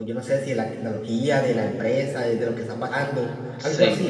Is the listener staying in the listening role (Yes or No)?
No